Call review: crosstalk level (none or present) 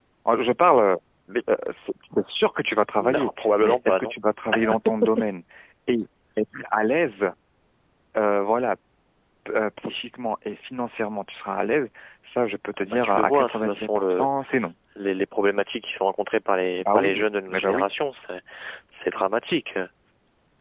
present